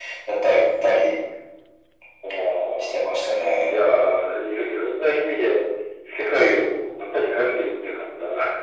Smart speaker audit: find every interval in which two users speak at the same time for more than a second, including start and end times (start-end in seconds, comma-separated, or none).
none